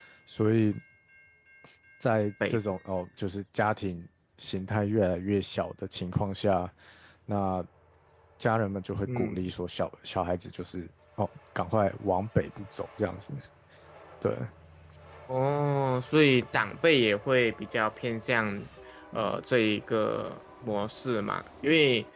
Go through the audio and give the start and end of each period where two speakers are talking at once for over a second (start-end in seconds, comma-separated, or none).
none